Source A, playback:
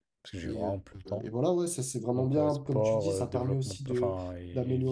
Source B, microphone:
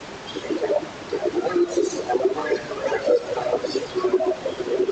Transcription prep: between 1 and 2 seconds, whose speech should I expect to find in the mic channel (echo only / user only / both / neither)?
echo only